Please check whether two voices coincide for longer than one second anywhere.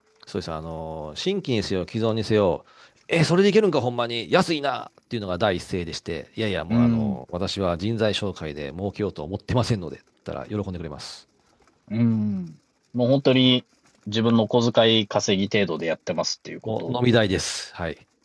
No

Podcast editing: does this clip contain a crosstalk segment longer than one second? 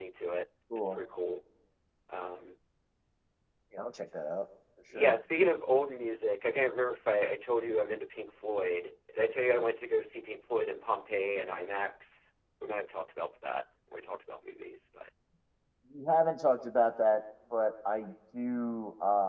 No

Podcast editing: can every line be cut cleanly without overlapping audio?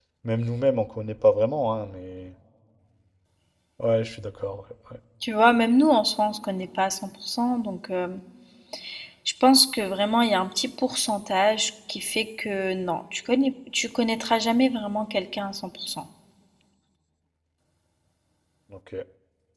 Yes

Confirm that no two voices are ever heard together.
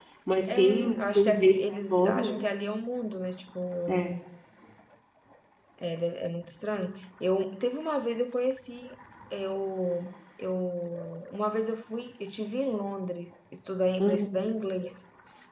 No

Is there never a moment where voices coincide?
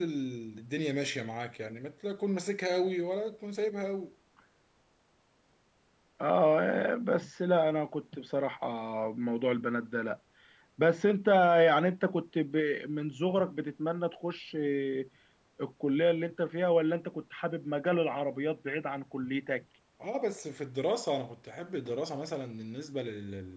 Yes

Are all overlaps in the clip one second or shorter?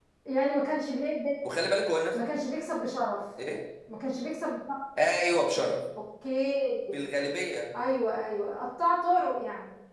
Yes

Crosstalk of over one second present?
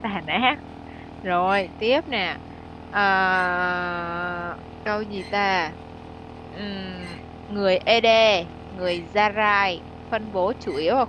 No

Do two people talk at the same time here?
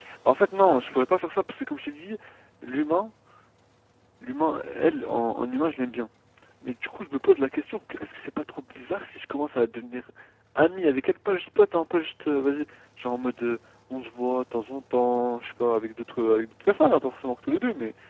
No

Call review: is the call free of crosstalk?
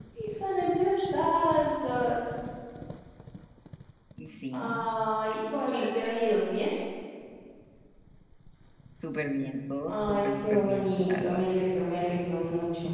No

